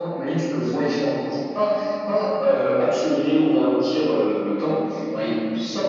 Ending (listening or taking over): listening